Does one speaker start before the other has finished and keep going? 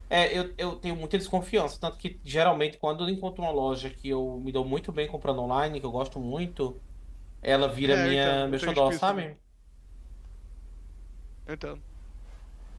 Yes, from 7.8 s

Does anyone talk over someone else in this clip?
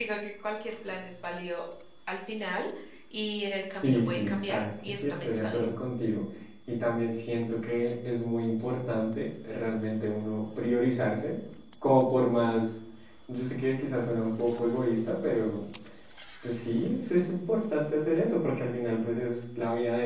Yes, from 3.8 s

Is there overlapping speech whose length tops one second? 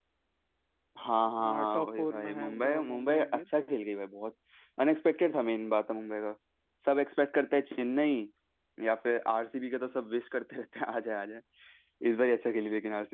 Yes, from 1.4 s

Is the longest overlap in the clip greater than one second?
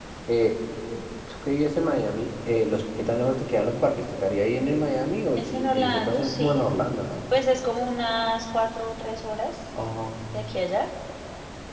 Yes, from 5.4 s

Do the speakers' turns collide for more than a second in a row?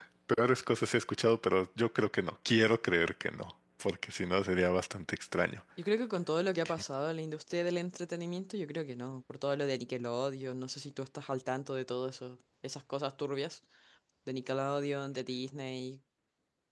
No

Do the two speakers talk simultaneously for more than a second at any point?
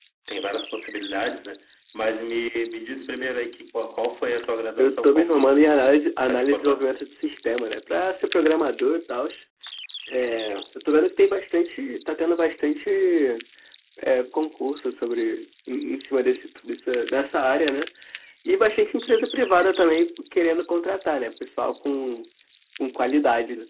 Yes, from 4.8 s

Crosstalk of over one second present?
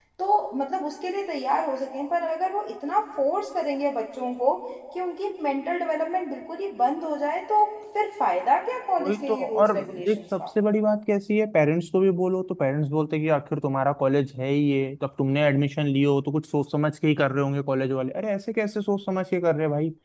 Yes, from 9.0 s

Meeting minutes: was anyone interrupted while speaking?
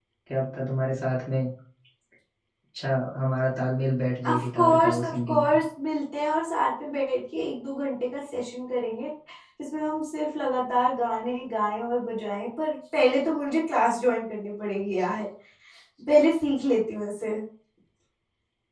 Yes, from 4.2 s

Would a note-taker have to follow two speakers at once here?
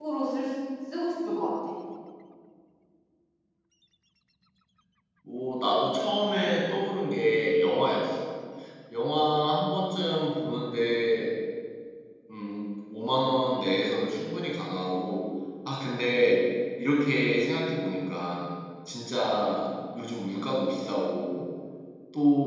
No

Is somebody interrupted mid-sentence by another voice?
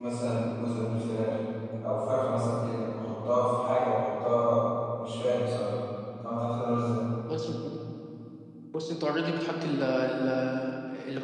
No

